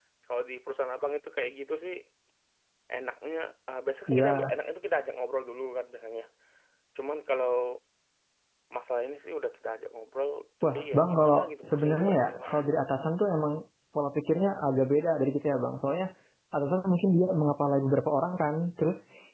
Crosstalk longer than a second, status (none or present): present